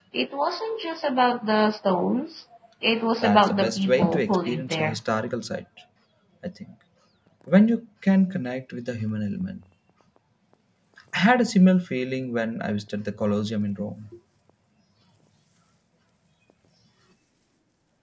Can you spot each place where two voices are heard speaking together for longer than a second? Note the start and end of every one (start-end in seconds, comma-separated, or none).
3.2-5.0